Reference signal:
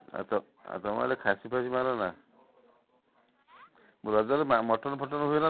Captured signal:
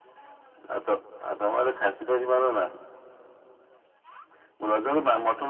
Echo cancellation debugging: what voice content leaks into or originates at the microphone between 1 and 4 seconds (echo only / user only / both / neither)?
echo only